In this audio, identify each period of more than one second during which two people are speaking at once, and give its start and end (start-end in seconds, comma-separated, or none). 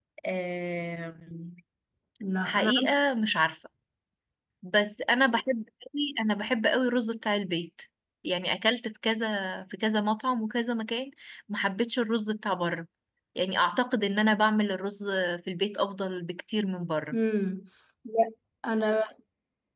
none